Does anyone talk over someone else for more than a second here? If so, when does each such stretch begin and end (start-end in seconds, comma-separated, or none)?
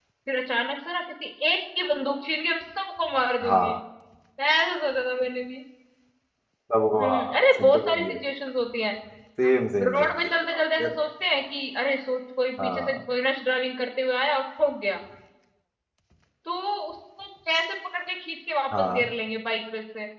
7.0-8.3, 9.5-10.9